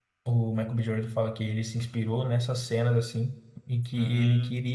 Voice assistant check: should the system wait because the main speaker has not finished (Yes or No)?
Yes